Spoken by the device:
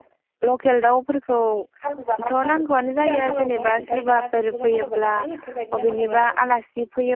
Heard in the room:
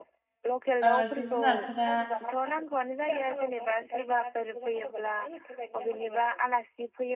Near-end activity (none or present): present